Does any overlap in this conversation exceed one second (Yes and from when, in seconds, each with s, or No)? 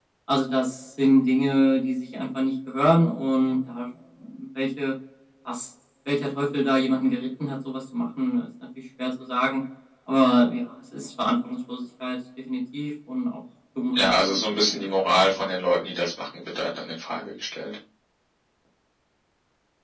Yes, from 14.0 s